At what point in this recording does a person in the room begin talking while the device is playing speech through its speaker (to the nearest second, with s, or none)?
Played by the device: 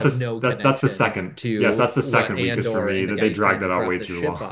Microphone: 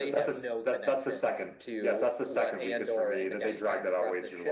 none